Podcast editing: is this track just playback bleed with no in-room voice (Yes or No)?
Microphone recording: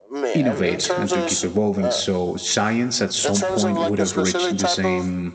No